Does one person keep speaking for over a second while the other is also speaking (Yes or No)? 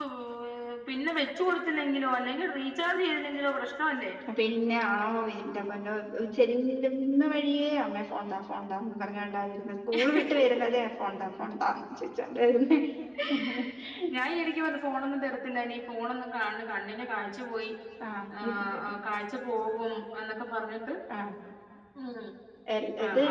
No